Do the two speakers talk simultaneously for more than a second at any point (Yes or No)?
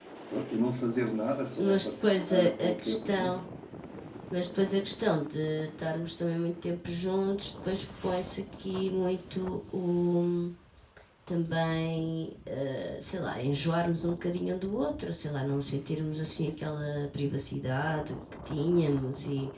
Yes